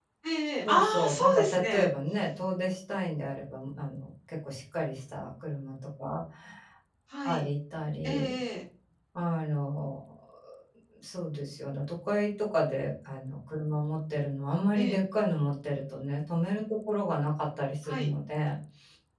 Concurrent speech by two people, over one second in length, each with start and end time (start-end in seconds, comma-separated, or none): 0.6-1.9